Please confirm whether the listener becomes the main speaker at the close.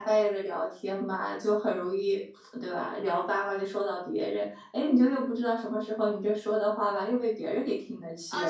Yes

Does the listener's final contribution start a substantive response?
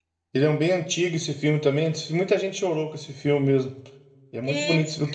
Yes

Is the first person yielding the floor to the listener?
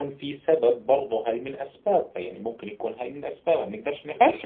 Yes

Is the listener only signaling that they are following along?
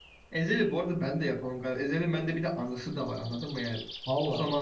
Yes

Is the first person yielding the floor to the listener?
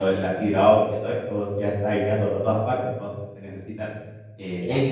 No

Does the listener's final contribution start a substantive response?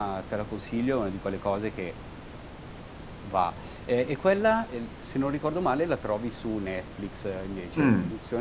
Yes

